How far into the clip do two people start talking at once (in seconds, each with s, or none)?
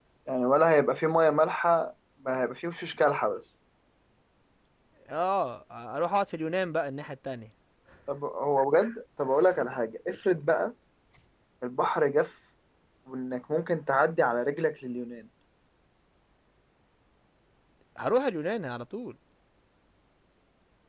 none